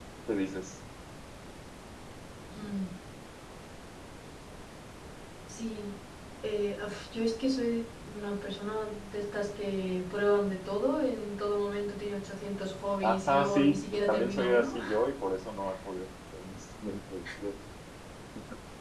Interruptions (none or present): present